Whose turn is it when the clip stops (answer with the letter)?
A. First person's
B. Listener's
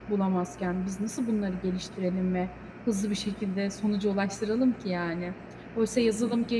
A